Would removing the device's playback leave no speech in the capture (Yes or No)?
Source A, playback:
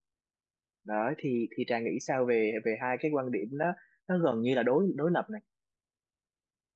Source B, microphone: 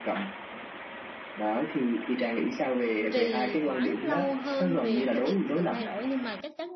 No